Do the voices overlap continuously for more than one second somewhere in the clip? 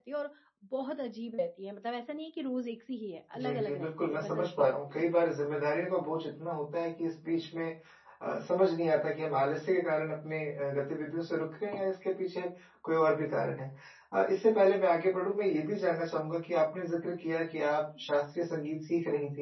Yes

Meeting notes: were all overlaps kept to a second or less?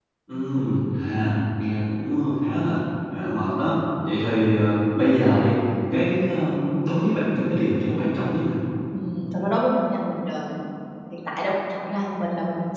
Yes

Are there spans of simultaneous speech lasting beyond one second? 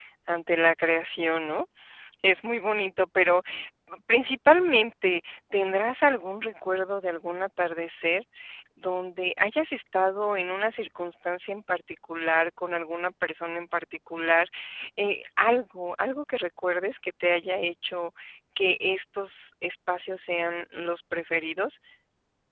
No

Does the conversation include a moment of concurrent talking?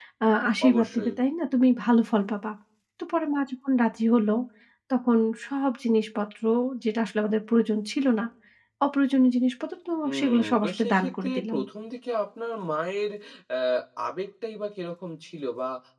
Yes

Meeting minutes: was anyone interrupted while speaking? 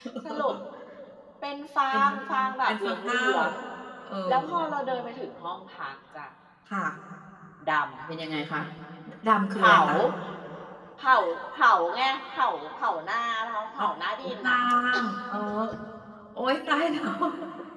Yes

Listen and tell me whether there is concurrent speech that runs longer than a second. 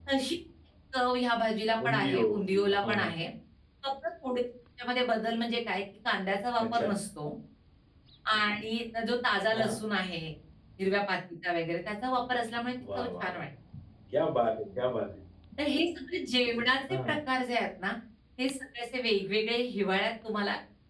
Yes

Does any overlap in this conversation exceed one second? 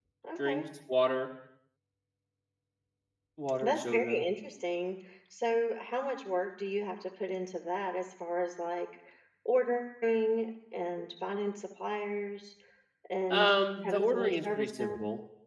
Yes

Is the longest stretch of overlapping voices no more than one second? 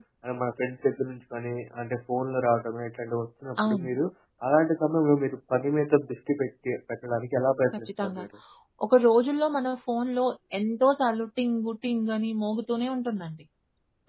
Yes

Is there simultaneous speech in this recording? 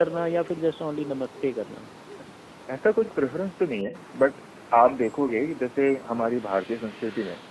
No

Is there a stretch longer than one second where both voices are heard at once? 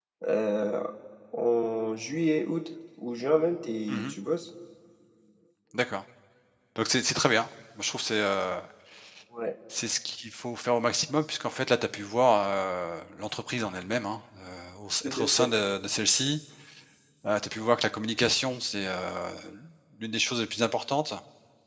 No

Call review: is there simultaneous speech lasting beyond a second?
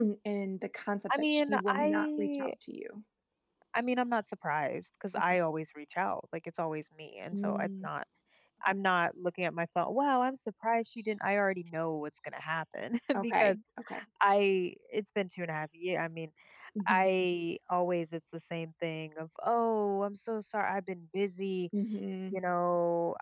Yes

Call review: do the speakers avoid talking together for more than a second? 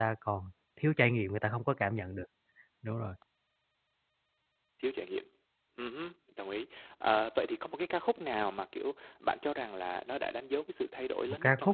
Yes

